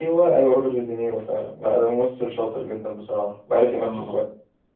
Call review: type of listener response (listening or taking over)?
taking over